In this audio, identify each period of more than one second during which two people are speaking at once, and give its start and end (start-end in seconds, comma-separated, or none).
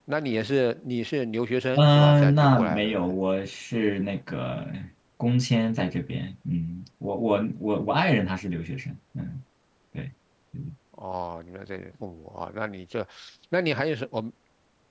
1.8-3.1